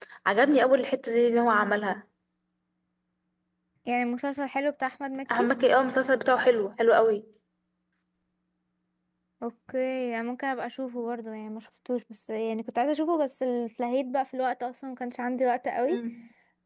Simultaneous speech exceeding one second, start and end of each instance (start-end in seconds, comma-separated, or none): none